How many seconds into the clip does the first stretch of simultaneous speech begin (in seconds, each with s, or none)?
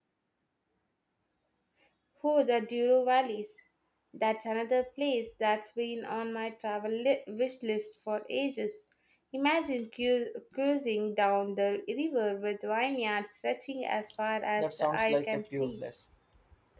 14.6 s